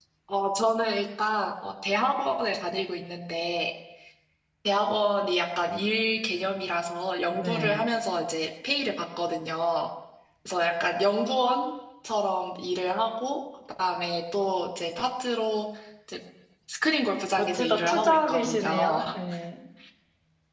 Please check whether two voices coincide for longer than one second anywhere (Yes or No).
Yes